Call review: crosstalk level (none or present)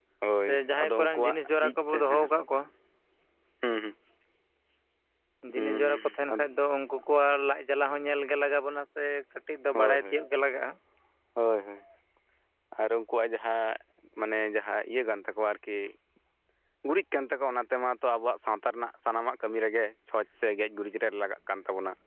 present